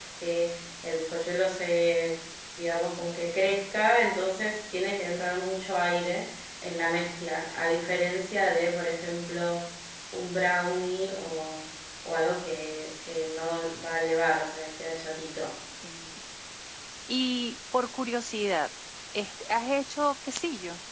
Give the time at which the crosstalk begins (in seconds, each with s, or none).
none